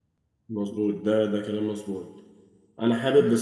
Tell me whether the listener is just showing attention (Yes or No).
Yes